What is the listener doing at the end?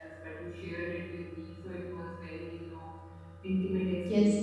taking over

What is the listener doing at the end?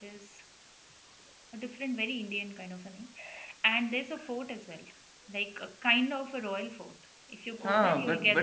taking over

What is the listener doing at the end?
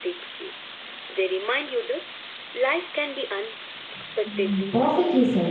taking over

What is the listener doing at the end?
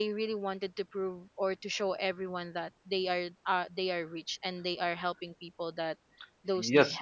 taking over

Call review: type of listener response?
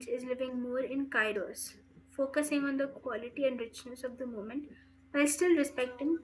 taking over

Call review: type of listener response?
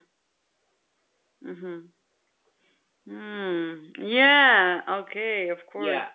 taking over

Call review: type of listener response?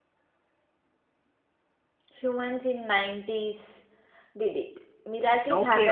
taking over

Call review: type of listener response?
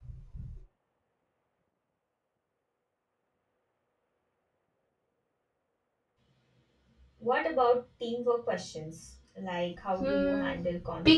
taking over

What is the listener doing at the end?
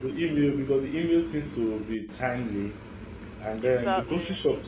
listening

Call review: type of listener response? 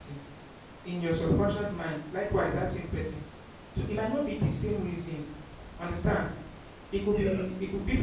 listening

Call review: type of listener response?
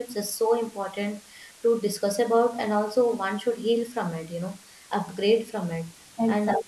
taking over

